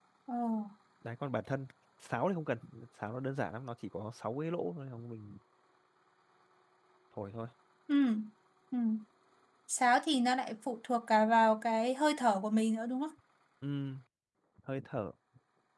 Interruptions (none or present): none